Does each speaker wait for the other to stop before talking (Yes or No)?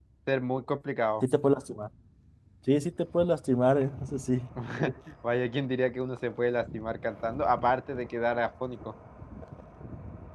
Yes